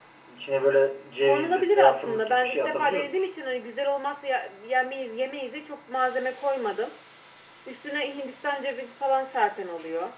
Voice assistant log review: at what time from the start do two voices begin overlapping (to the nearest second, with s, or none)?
1 s